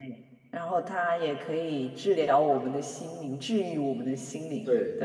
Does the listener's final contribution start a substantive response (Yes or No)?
Yes